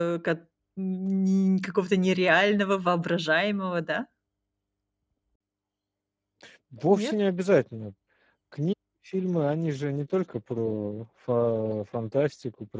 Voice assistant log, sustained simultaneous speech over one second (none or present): none